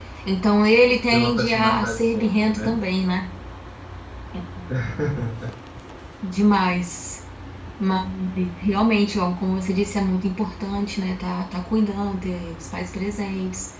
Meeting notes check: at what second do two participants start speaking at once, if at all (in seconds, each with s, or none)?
1.1 s